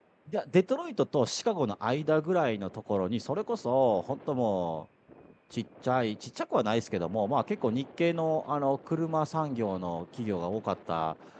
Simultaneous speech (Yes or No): No